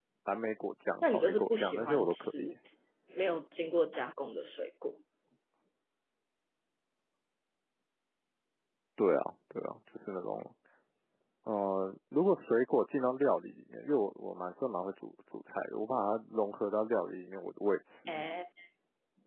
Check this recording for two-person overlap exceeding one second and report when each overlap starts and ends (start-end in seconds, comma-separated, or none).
1.0-2.5